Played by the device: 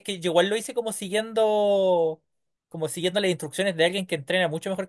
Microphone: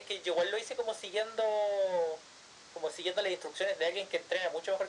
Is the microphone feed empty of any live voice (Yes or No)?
Yes